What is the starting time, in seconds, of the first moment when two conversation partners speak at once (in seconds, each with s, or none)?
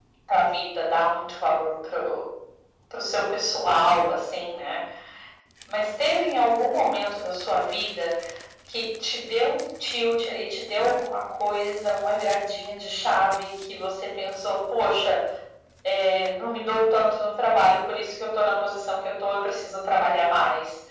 none